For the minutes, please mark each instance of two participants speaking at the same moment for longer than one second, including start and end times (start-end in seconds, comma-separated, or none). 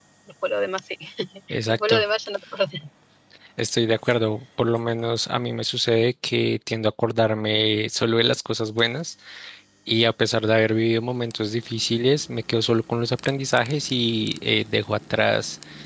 none